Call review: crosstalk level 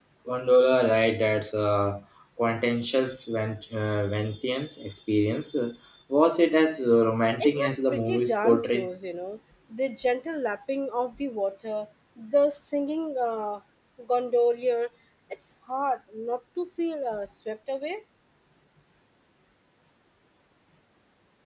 present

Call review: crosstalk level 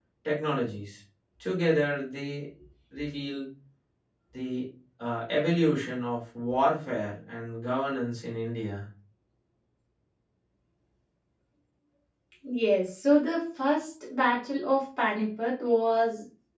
none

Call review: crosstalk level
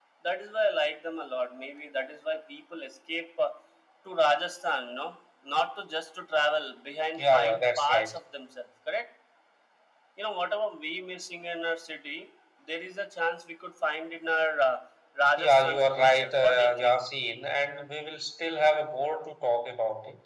present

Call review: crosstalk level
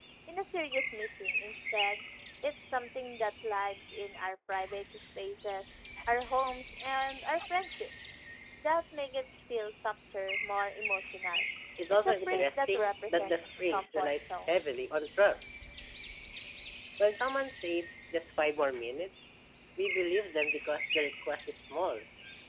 present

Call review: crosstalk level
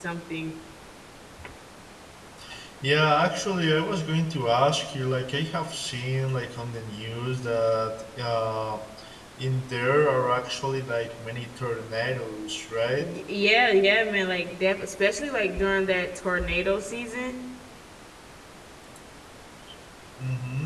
none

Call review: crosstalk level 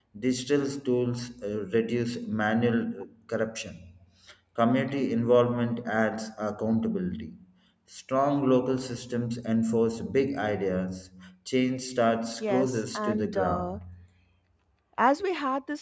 present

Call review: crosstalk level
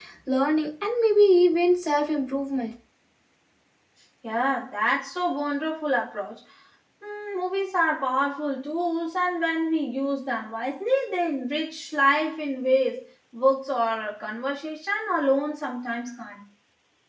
none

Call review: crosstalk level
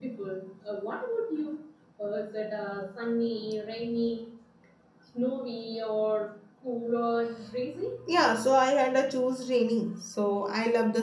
none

